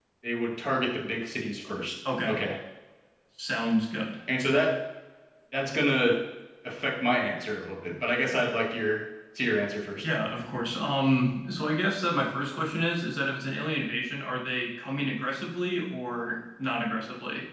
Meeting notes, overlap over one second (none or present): none